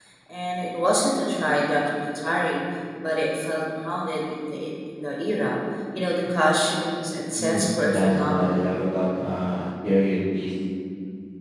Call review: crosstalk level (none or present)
present